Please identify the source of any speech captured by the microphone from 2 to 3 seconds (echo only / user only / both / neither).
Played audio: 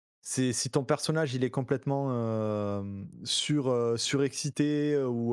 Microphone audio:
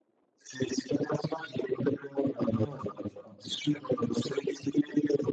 both